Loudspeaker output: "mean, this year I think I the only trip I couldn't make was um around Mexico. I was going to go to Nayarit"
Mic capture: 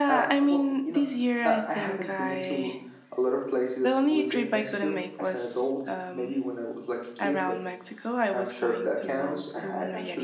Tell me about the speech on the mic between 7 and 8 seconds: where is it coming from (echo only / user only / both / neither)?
both